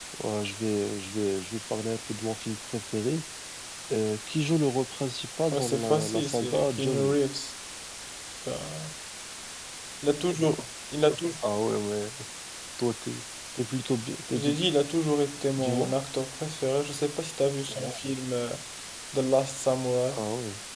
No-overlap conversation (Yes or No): No